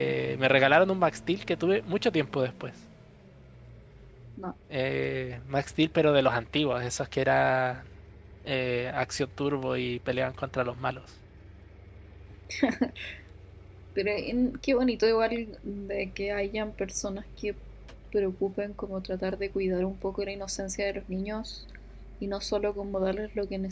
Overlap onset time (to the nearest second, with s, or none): none